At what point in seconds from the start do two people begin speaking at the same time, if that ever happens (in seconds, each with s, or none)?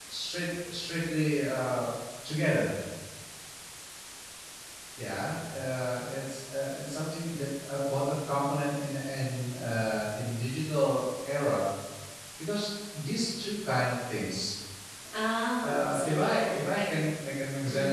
15.6 s